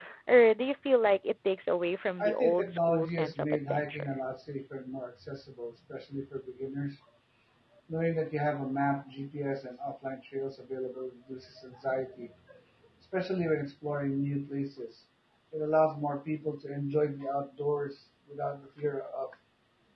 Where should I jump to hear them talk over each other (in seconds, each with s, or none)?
2.2 s